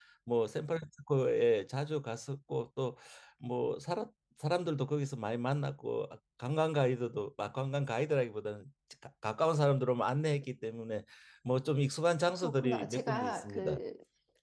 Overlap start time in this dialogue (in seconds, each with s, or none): 12.4 s